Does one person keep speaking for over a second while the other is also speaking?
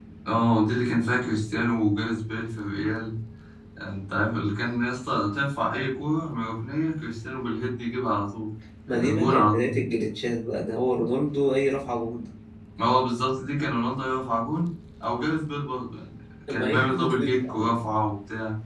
Yes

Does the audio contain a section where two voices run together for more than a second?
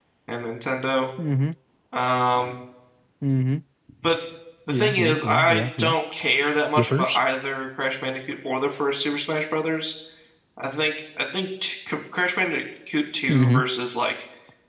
Yes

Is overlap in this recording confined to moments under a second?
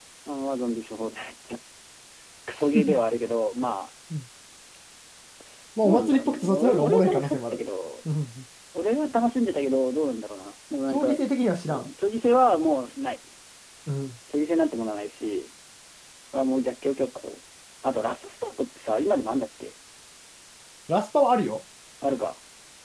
No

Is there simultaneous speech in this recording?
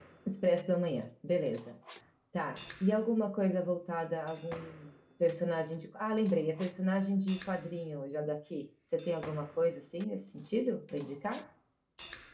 No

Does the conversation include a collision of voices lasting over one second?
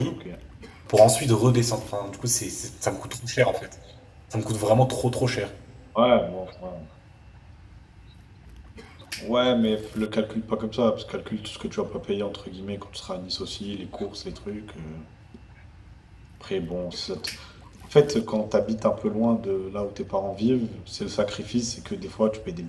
No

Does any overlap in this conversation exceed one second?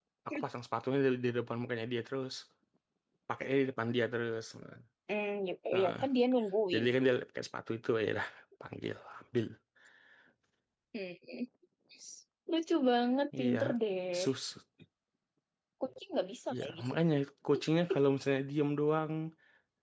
No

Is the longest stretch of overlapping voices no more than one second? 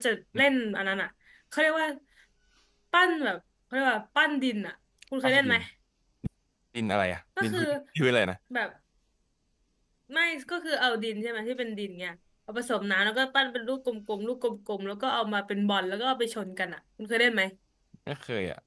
Yes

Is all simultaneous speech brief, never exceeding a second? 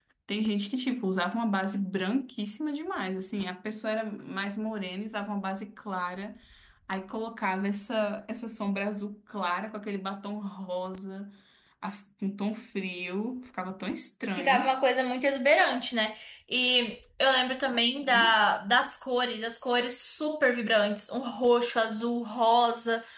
Yes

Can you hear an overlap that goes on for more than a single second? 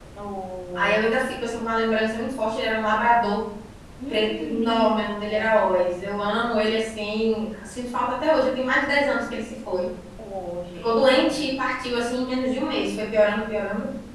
Yes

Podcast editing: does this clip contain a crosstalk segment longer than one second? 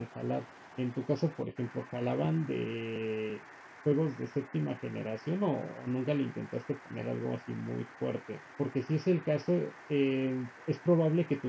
No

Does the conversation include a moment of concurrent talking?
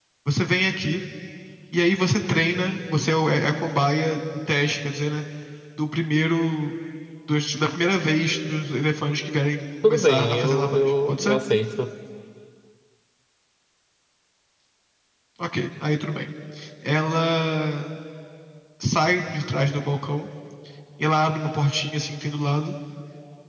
Yes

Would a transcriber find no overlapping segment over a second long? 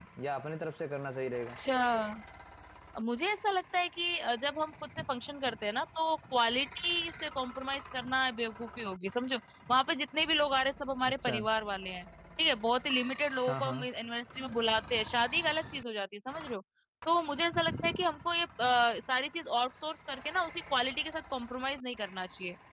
Yes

